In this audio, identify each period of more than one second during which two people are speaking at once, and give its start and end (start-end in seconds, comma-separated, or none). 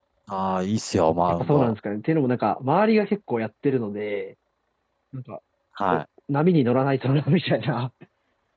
none